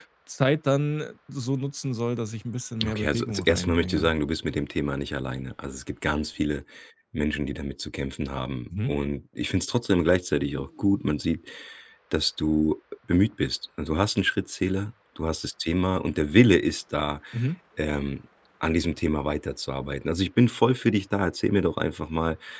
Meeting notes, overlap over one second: present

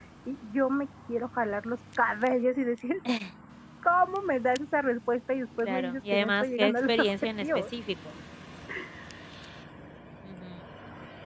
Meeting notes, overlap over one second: present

